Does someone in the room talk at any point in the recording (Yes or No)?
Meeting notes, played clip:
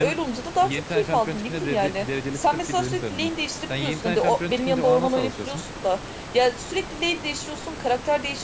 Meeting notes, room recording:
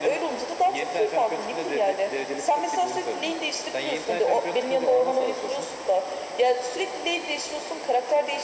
No